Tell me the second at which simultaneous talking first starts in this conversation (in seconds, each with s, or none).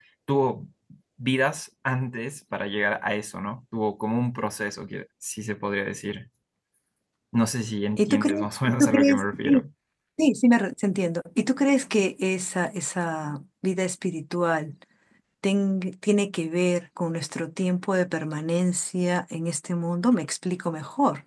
8.0 s